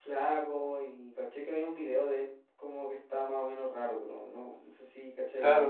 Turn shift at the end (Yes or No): Yes